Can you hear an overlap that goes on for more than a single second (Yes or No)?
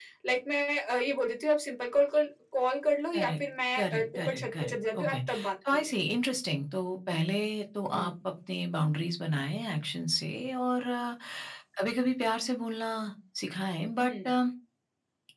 Yes